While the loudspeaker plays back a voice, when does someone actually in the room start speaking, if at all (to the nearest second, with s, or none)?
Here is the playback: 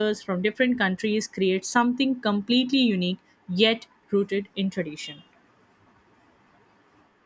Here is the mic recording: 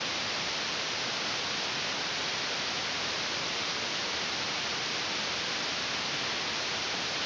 none